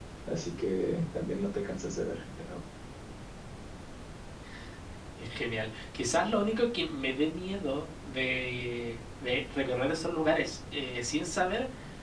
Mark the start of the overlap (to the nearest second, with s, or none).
none